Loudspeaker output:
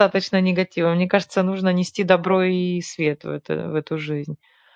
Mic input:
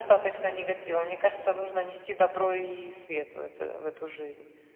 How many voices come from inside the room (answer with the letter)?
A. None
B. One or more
A